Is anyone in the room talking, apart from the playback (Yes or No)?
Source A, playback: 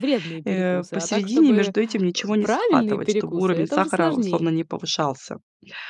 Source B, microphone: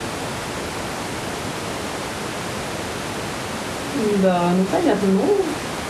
Yes